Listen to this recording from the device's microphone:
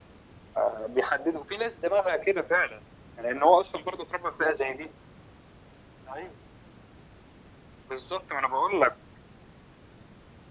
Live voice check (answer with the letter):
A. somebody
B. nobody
B